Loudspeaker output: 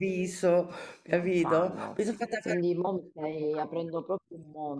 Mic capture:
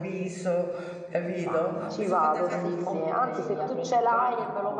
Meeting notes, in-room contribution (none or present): present